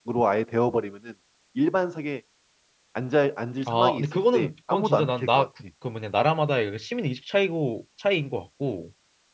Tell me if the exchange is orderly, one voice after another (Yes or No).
No